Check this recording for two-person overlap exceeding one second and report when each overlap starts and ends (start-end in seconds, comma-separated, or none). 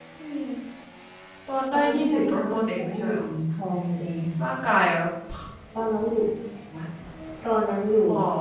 1.7-3.2